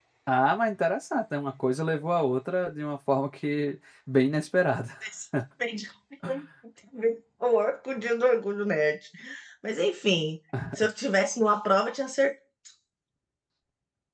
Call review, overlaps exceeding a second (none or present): none